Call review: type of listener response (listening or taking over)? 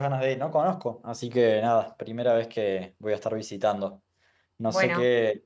listening